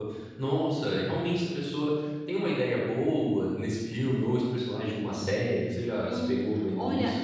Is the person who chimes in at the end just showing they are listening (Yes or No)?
No